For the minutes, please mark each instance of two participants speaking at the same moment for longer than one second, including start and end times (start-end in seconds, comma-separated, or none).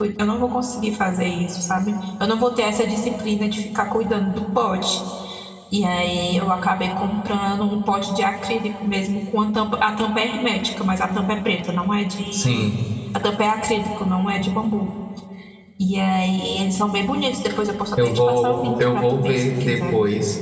18.0-19.9